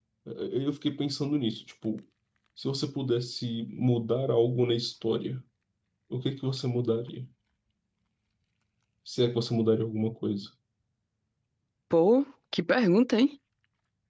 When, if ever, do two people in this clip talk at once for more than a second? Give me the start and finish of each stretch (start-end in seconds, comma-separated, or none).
none